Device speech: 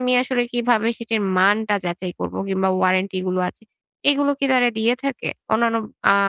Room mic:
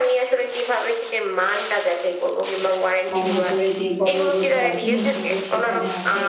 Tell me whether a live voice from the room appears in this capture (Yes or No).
Yes